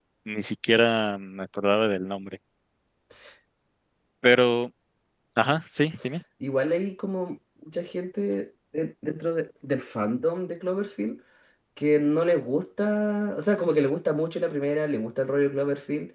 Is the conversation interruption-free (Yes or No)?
Yes